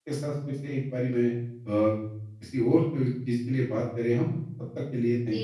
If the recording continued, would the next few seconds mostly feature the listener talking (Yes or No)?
Yes